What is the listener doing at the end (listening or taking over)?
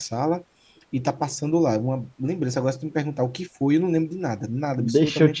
taking over